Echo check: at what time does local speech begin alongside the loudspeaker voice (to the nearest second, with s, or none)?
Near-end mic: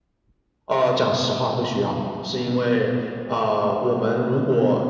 none